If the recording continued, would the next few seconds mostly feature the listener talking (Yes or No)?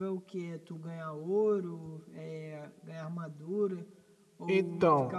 No